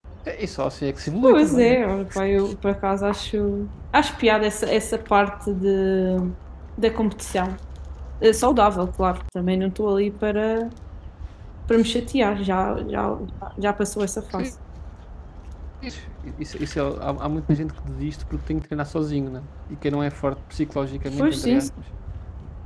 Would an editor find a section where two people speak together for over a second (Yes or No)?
No